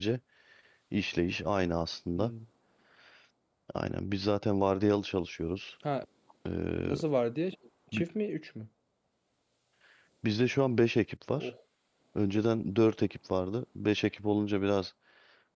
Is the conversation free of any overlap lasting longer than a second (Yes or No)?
Yes